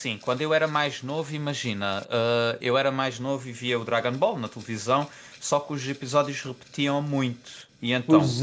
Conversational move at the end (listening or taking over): taking over